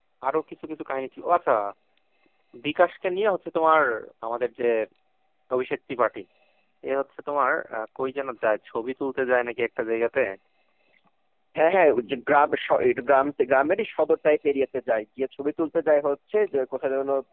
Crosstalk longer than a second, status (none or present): none